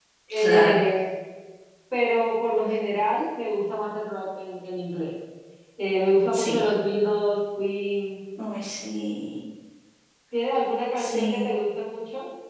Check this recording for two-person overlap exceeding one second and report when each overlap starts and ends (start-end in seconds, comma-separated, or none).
none